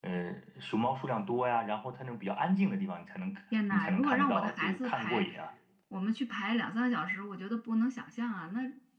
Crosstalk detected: Yes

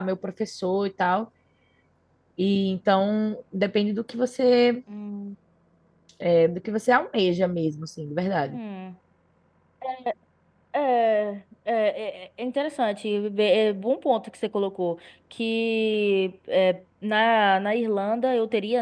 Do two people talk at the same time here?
No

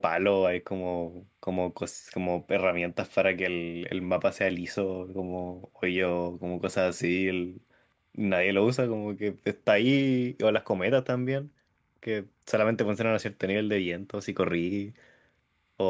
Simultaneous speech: No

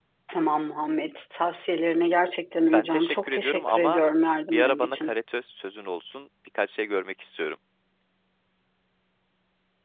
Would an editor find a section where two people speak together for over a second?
Yes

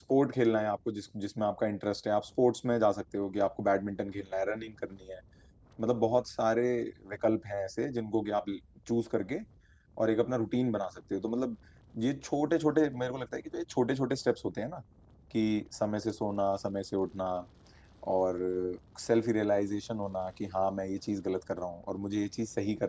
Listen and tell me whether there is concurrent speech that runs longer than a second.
No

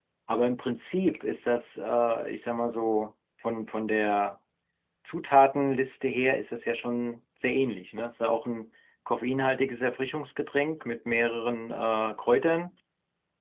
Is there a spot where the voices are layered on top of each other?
No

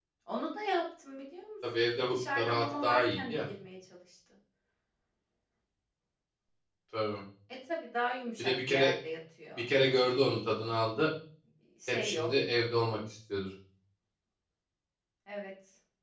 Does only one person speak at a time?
No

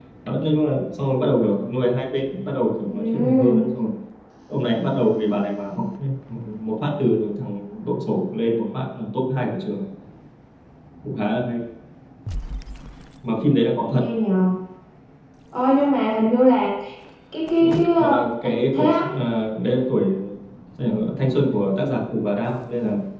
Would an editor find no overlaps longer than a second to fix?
No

